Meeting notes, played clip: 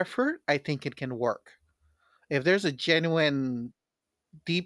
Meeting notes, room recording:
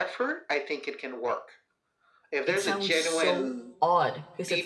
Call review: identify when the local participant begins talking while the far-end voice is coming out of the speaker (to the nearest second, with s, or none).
2 s